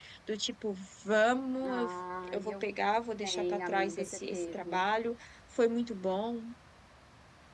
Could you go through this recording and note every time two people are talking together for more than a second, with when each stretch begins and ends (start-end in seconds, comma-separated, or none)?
3.2-4.8